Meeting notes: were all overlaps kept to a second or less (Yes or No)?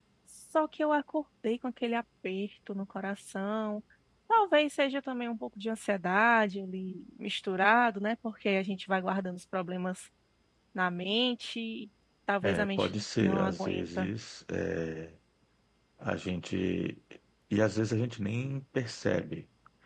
No